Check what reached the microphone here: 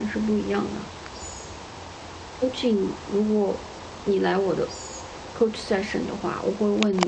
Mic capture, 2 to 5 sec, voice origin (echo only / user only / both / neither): user only